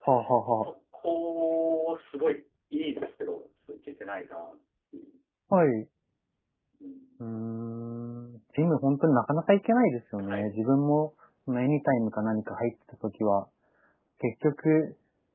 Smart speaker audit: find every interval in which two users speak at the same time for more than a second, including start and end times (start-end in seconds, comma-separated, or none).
none